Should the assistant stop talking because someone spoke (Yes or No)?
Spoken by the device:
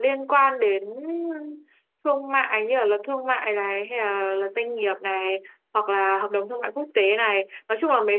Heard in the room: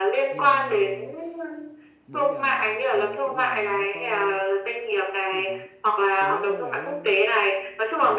Yes